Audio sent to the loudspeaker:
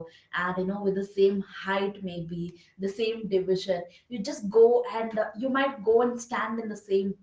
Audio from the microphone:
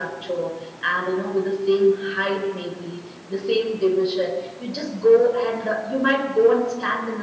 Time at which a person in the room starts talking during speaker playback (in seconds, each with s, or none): none